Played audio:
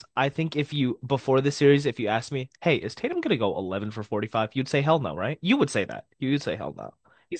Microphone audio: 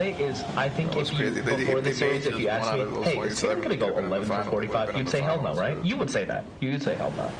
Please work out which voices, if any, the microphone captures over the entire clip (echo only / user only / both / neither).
both